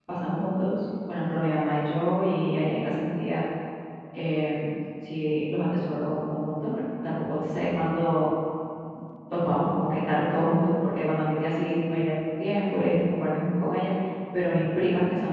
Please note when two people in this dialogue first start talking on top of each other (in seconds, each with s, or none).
none